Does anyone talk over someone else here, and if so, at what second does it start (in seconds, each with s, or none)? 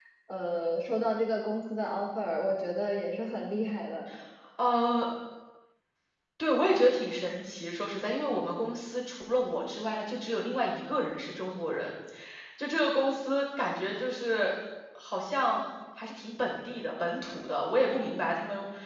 none